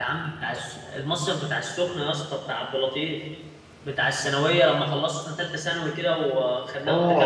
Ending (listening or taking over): taking over